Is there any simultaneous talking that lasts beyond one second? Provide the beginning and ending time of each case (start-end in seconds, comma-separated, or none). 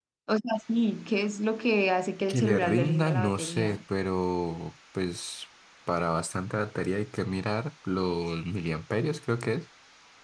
2.3-3.8